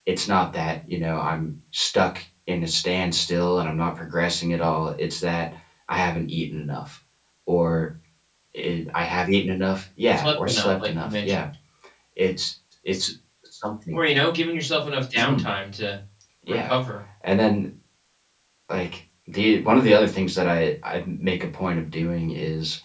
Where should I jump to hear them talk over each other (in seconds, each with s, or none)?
10.1 s